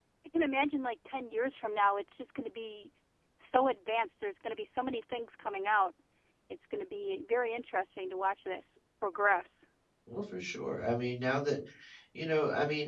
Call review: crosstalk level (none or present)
none